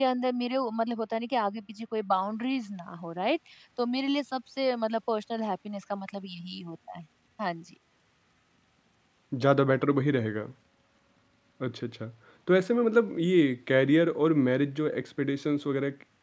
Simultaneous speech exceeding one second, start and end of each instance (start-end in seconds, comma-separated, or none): none